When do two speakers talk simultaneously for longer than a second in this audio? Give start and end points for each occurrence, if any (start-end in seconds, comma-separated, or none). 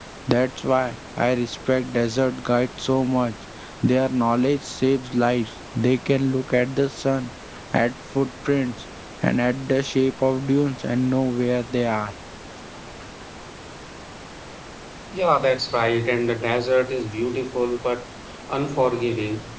none